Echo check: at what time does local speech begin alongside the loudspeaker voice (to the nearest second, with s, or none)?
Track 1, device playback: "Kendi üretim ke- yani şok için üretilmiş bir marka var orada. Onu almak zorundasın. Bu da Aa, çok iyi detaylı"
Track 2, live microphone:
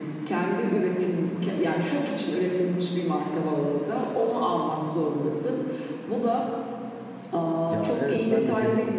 8 s